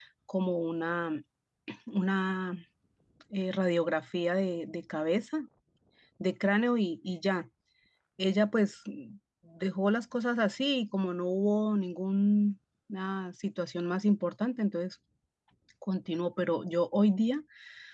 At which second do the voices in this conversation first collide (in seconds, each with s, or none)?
none